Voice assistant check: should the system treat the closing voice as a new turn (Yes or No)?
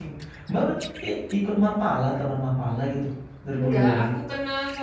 Yes